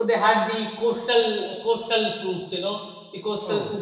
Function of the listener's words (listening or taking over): listening